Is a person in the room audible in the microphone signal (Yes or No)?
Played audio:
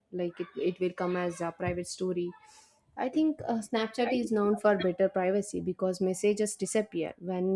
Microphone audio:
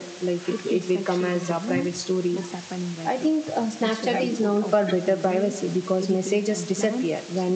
Yes